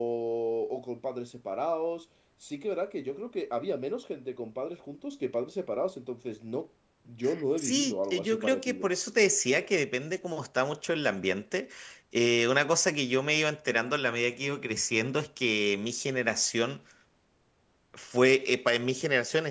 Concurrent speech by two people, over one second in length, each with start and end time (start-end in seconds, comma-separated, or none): 7.6-8.9